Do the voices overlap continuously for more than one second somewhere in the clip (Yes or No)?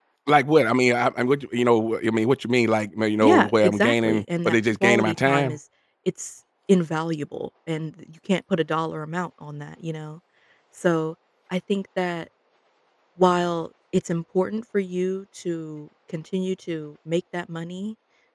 Yes